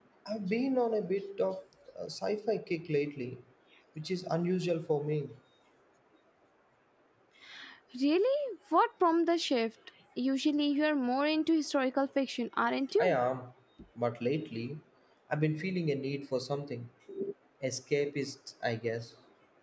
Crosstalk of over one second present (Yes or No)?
No